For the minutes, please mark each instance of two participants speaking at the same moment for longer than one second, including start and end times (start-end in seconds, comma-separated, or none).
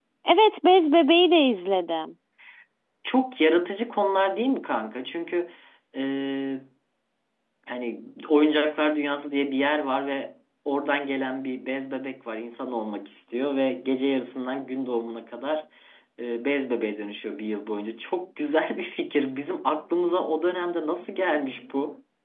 none